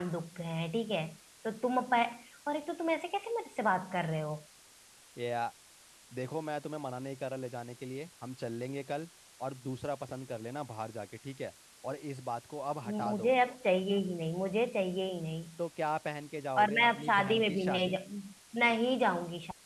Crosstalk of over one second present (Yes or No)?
Yes